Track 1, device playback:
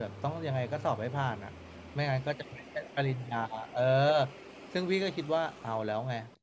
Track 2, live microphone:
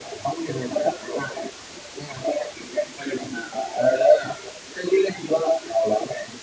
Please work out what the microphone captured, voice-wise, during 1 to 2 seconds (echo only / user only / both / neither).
echo only